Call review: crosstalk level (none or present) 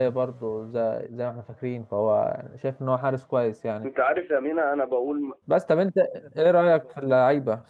none